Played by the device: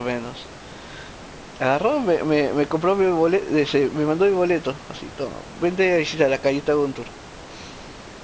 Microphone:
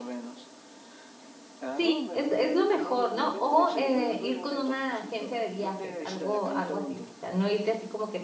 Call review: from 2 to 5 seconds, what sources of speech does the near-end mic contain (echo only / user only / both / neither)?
both